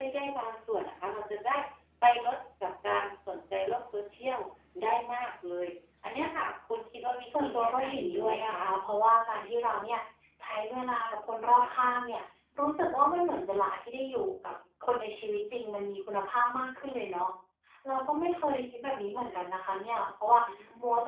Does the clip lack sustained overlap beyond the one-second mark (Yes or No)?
No